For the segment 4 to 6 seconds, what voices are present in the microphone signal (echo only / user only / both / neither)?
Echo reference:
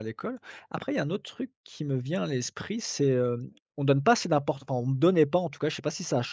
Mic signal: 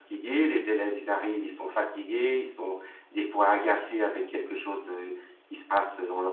user only